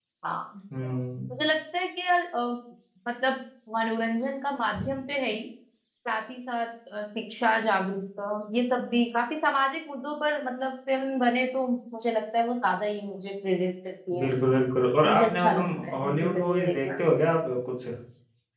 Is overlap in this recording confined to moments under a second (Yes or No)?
No